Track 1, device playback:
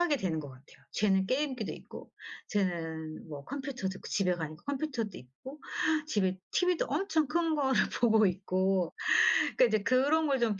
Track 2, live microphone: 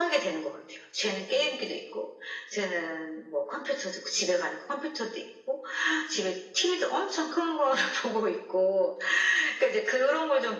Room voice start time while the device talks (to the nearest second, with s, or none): none